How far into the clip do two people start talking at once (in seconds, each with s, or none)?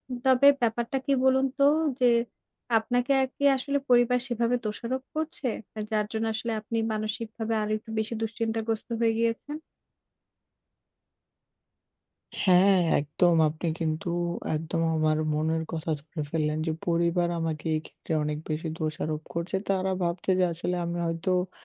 none